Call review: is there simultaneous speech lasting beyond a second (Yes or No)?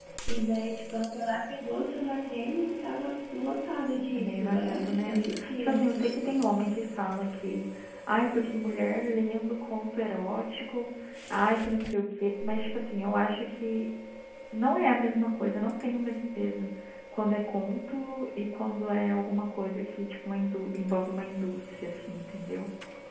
Yes